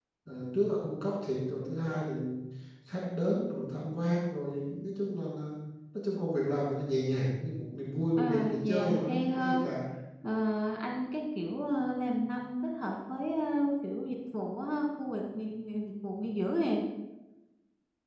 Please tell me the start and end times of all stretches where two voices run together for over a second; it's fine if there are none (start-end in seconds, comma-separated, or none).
8.2-9.6